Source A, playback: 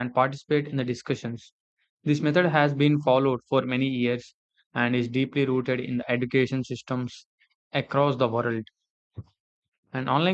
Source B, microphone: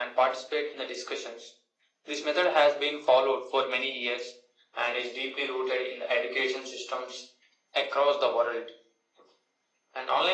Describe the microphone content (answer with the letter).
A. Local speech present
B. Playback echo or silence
B